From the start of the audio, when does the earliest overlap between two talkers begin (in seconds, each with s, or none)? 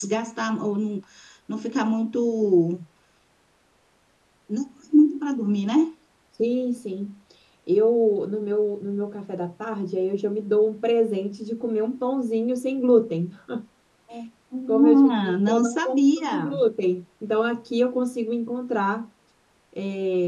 14.7 s